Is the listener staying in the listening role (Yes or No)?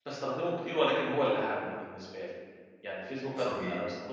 Yes